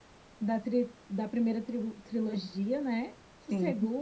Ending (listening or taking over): listening